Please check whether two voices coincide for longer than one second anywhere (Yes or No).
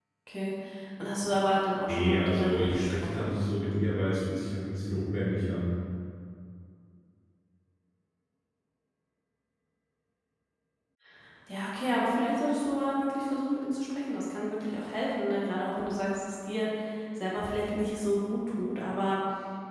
Yes